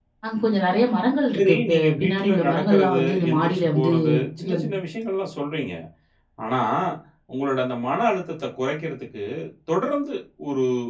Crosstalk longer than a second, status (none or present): present